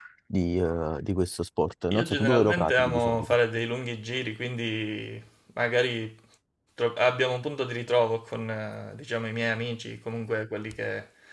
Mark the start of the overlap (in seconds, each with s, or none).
1.9 s